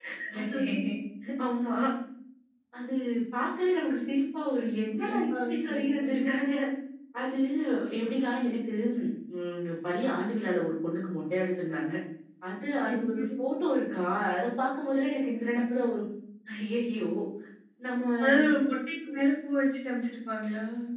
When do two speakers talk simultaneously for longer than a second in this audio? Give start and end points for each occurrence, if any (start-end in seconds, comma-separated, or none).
5.0-6.2